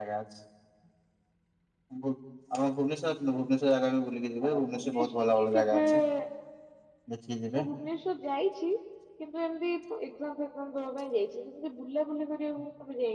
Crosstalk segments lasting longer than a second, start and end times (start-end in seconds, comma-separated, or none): 4.5-6.0